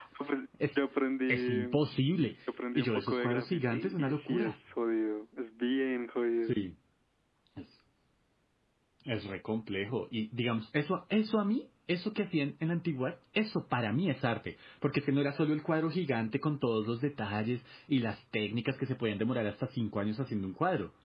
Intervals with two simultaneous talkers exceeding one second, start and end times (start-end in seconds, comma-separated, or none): 2.8-4.5